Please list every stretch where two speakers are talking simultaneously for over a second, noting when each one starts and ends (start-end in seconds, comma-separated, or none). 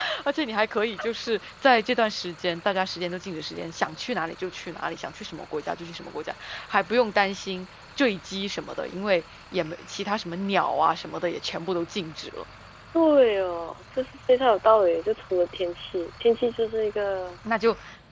none